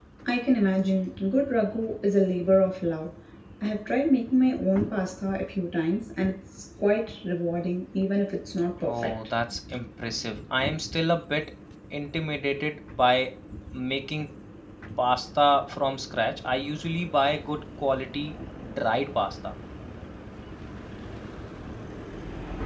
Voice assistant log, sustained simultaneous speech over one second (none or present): none